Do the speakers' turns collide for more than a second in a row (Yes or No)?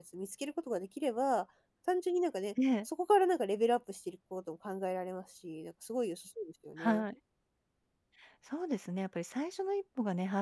No